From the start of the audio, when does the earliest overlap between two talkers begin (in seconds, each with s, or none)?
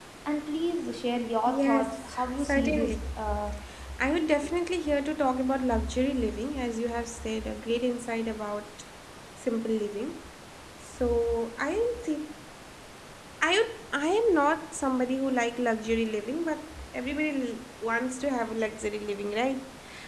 1.5 s